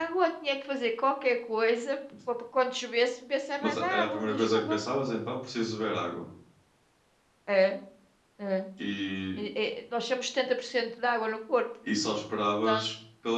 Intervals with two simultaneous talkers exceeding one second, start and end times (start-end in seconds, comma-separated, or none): 3.6-4.8